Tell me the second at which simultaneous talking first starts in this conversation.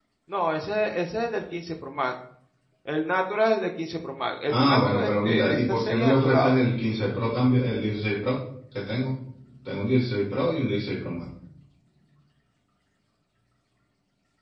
4.5 s

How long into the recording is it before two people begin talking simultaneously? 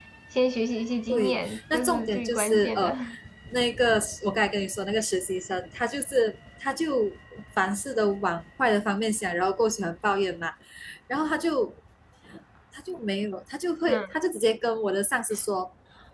1.1 s

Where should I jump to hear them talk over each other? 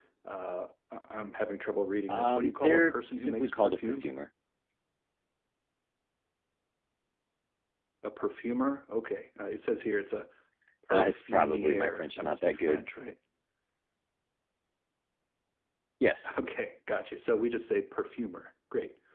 2.1 s

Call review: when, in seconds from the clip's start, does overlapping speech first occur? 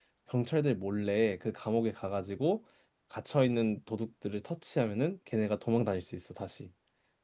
none

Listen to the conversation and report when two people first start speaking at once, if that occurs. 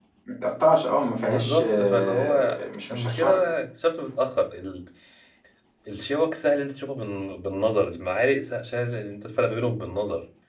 1.2 s

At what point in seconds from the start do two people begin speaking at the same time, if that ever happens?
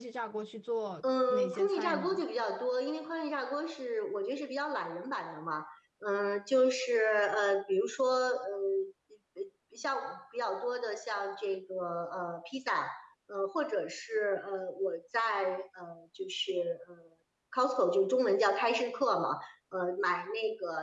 1.0 s

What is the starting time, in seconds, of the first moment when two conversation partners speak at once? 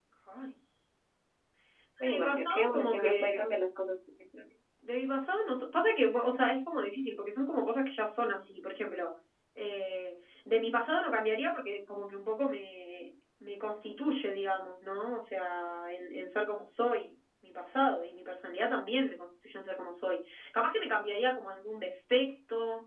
2.0 s

